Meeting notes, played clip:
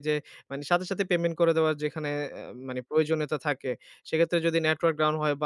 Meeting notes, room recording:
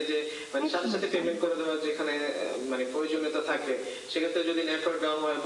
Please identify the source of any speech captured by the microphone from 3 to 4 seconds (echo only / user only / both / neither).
echo only